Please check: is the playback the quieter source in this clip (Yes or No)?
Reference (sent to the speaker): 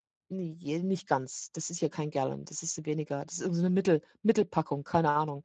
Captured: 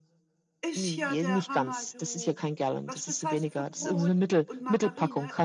No